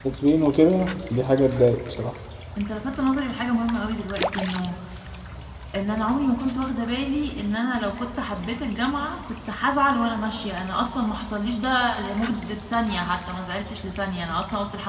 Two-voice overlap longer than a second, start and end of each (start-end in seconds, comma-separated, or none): none